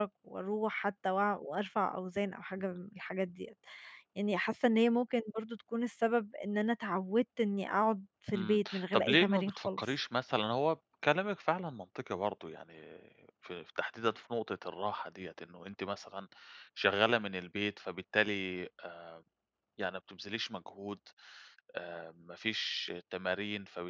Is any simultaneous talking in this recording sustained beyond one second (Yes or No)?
Yes